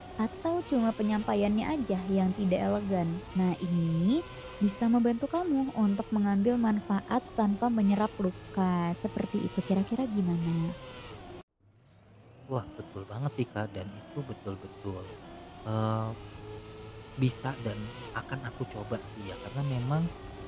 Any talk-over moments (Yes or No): No